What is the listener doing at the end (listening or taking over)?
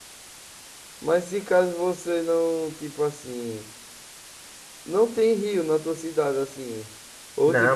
taking over